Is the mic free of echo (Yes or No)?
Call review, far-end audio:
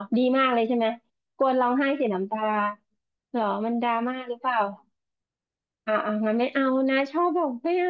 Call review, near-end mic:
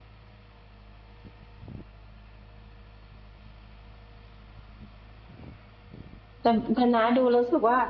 Yes